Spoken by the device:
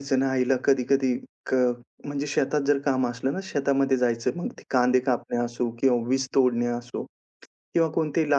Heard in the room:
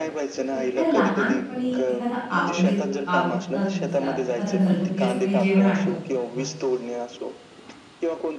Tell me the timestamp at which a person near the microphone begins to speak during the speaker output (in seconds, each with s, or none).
0.5 s